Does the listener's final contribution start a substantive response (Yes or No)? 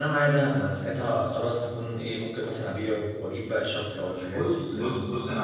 Yes